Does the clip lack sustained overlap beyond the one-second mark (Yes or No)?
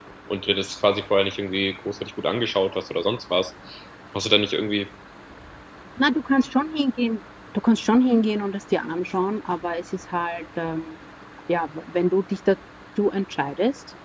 Yes